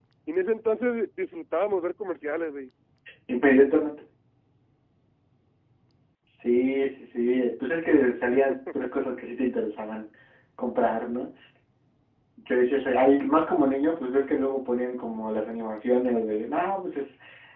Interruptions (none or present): none